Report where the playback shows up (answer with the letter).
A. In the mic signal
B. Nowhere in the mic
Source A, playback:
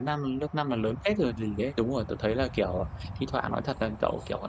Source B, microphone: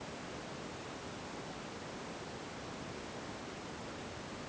B